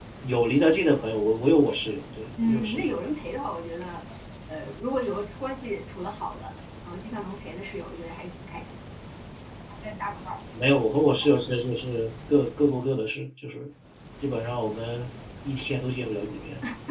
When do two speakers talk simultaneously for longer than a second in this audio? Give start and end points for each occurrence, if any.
none

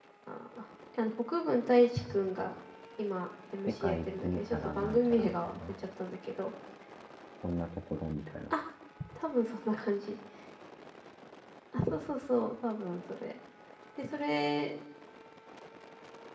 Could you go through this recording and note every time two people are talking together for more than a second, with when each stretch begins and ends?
3.7-5.7

